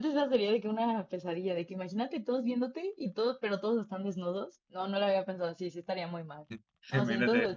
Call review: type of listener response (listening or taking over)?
taking over